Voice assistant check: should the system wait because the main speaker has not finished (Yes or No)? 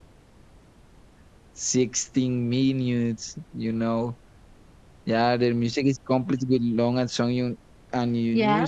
Yes